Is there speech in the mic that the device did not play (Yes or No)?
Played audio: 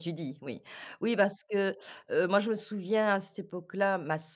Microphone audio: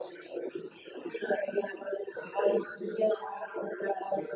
No